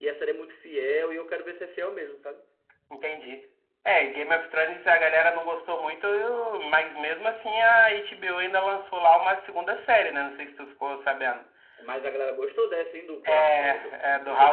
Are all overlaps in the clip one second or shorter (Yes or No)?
No